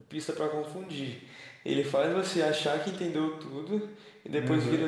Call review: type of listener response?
listening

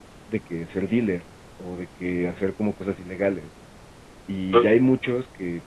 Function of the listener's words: listening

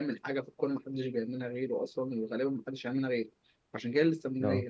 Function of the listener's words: listening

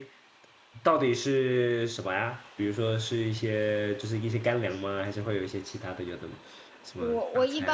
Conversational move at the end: taking over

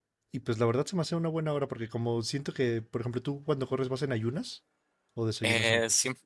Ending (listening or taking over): taking over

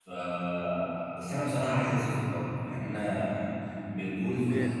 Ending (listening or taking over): taking over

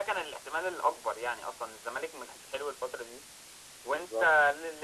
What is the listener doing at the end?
listening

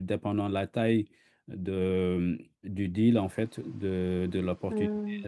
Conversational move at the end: listening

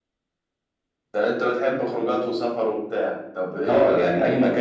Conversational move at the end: taking over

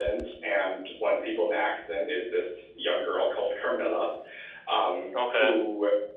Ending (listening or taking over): listening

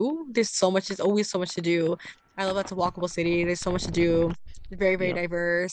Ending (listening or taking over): listening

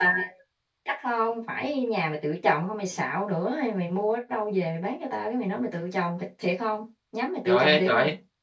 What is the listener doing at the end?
taking over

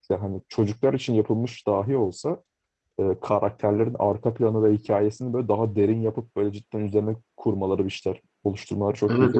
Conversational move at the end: taking over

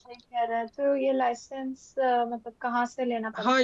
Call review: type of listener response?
taking over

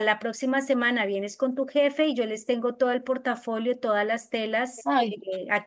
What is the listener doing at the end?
listening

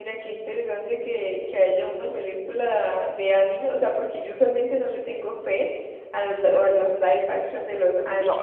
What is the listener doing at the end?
taking over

